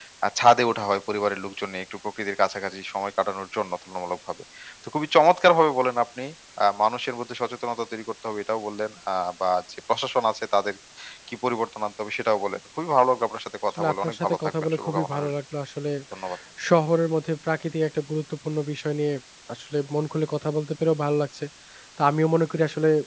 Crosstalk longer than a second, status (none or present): present